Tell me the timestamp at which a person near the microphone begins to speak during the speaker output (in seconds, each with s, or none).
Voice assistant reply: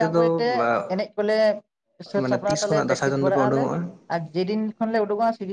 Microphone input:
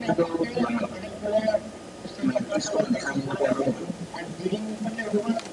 none